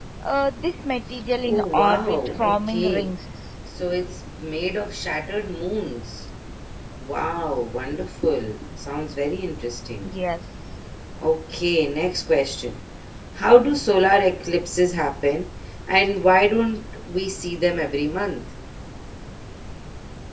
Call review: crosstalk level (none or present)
present